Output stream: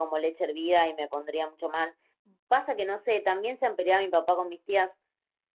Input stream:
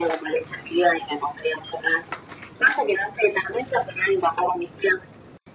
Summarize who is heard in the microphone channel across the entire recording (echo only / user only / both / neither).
echo only